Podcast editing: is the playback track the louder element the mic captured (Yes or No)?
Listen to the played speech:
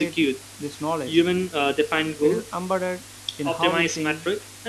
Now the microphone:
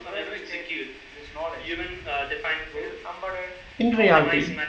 No